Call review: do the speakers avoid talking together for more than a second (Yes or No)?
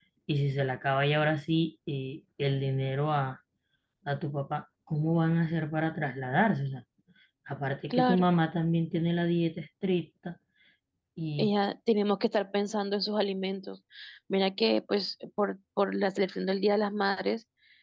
Yes